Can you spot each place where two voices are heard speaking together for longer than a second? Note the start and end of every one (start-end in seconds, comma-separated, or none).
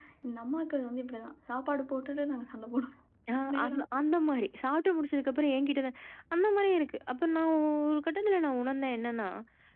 none